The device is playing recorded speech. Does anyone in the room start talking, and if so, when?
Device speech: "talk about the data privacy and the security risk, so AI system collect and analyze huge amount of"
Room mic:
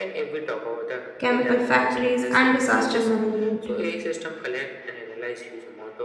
1 s

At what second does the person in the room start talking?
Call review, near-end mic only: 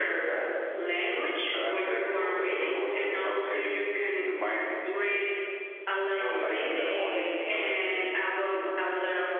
7 s

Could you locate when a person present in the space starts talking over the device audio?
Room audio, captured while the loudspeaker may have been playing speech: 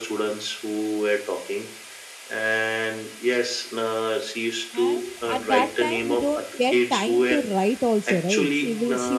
5 s

